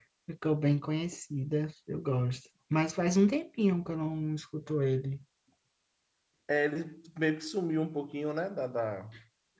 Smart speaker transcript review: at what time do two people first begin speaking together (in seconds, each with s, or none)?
none